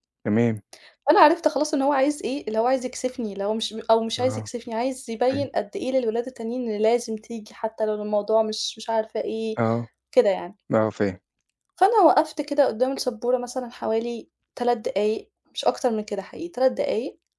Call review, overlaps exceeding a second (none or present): none